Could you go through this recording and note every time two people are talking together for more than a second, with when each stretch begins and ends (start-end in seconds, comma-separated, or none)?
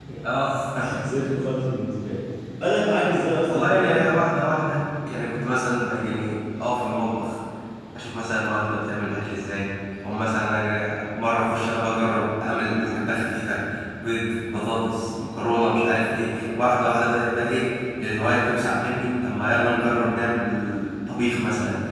none